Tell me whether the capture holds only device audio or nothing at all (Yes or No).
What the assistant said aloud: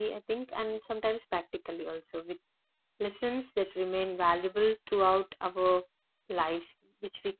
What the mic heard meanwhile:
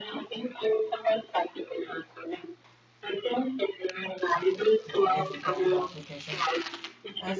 No